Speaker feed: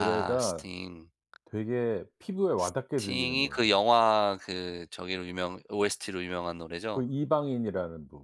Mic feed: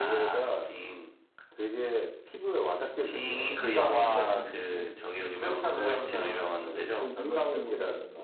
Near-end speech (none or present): present